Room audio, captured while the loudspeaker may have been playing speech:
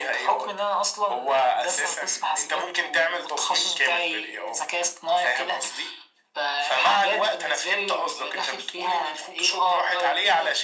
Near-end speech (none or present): none